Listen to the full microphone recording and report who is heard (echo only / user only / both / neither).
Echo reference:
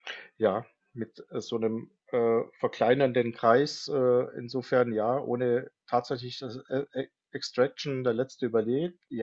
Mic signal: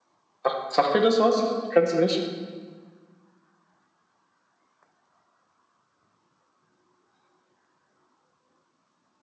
user only